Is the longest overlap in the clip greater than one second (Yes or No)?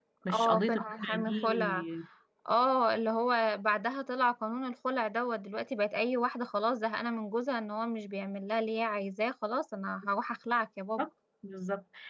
Yes